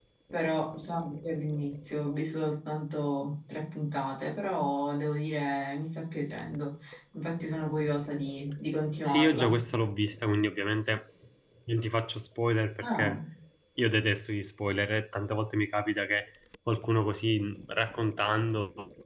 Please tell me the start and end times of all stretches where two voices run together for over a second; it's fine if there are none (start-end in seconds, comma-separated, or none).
none